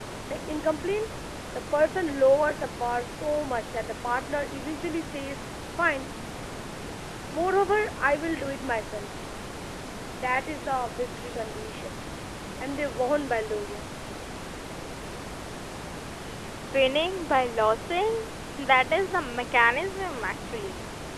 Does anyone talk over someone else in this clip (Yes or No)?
No